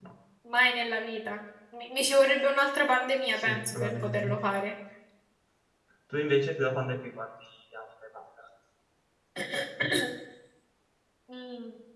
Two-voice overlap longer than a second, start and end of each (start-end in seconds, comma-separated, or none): 3.3-4.6